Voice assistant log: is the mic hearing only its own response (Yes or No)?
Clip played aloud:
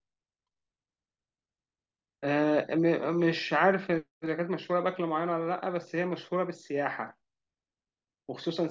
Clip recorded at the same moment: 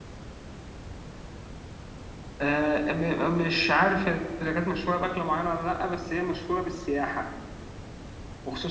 Yes